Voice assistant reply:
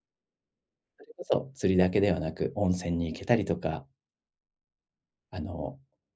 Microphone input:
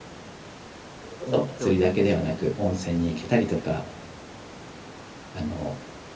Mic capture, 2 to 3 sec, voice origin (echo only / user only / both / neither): both